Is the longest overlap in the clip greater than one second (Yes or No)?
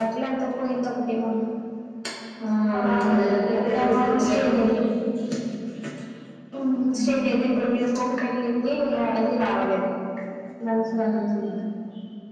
Yes